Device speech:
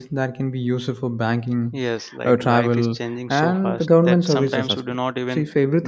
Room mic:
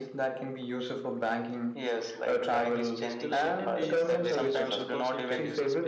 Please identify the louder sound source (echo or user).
echo